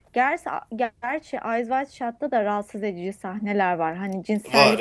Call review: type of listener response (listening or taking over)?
listening